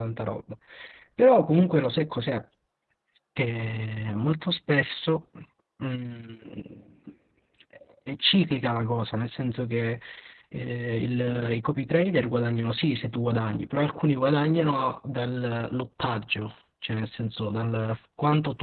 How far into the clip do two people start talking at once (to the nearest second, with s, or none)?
none